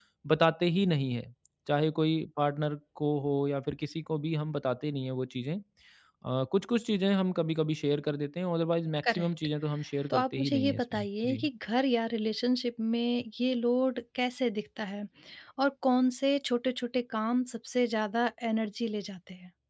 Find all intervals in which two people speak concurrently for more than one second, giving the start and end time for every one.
10.1-11.5

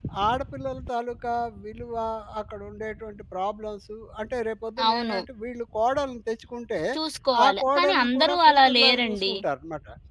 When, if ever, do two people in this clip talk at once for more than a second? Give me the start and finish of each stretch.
7.5-9.3

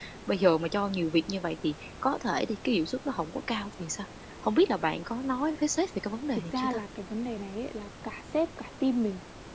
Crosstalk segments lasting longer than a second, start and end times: none

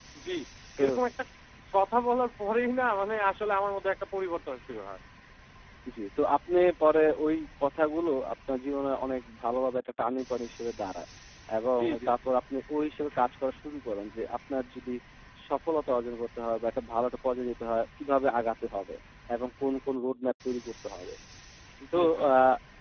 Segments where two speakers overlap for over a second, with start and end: none

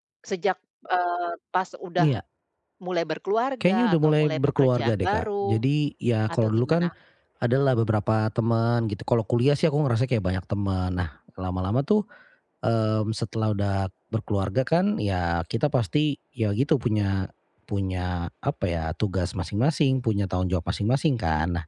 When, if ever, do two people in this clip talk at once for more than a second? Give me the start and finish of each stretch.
3.6-5.6

